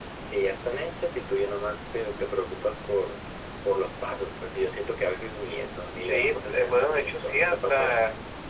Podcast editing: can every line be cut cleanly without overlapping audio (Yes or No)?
No